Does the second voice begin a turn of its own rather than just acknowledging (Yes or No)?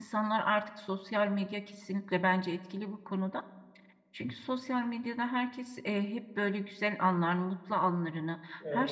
No